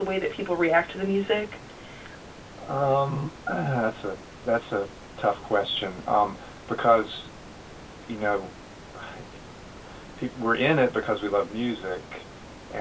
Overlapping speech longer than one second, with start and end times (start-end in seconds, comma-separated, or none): none